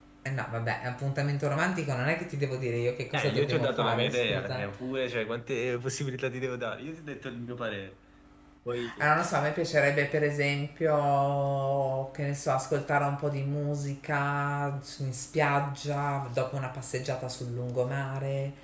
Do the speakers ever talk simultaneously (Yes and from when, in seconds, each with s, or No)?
Yes, from 3.1 s